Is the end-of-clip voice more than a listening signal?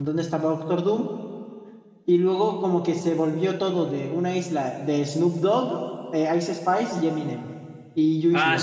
Yes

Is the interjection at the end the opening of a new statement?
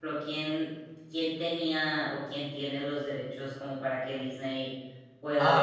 Yes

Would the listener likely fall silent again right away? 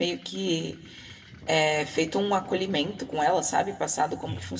No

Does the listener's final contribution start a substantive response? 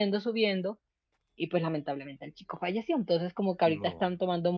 No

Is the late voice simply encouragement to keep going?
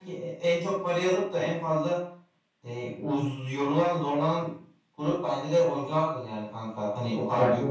Yes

